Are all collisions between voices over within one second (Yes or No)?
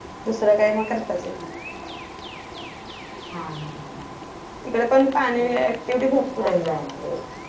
Yes